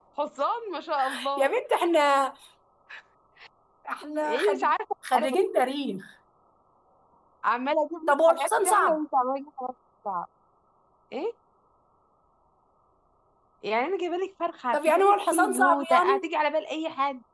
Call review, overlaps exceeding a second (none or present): present